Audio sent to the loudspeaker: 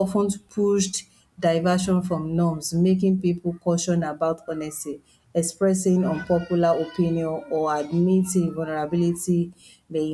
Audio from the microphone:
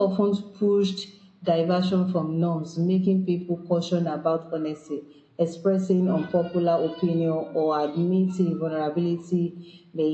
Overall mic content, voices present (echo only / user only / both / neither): echo only